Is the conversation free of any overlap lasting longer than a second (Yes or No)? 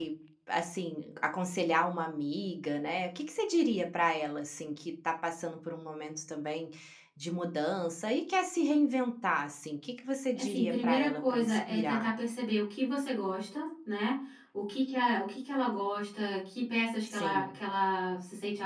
No